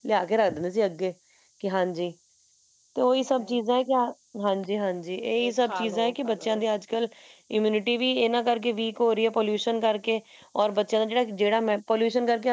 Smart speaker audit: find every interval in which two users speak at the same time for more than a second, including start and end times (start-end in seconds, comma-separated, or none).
5.4-6.6